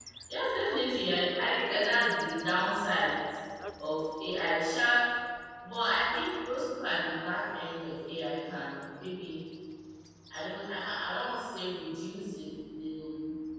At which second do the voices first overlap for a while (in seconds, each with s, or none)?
0.6 s